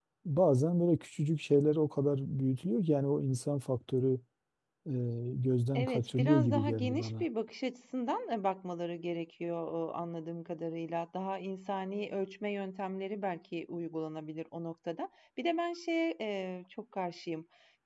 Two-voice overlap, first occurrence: 6 s

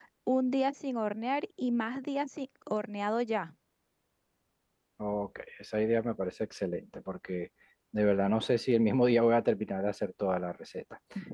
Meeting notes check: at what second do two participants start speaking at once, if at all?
none

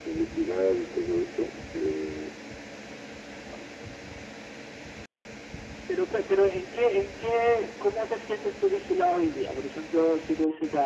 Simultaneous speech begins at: none

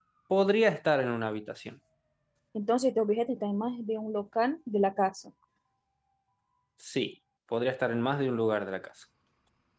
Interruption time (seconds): none

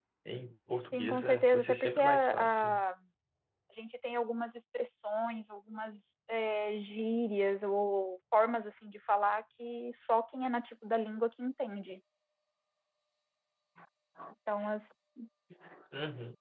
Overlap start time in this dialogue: 1 s

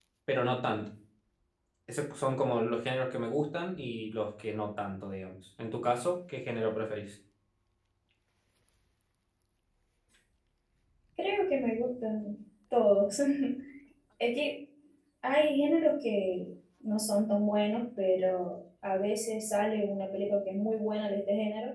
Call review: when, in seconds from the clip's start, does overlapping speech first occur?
none

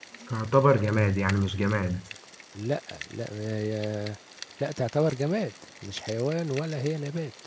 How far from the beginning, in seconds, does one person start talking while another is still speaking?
none

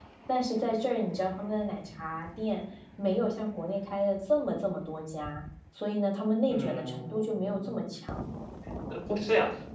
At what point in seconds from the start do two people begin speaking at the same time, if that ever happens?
6 s

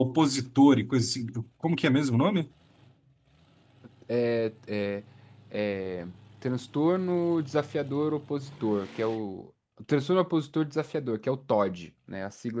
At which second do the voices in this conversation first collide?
none

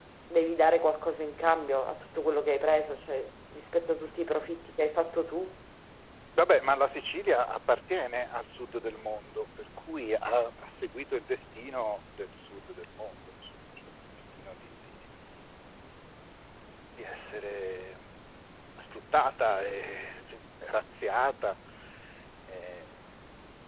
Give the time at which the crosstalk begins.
none

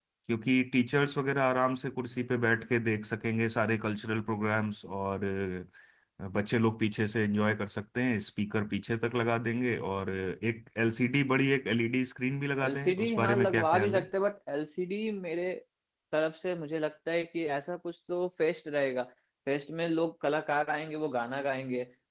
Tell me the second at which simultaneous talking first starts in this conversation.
13 s

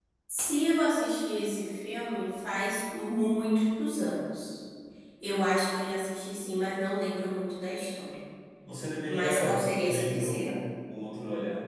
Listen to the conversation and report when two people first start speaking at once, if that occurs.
9 s

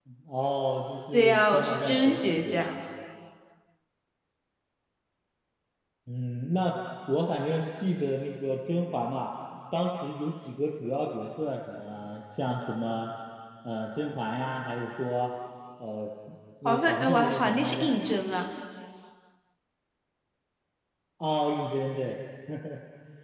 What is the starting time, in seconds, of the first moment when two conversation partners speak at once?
1 s

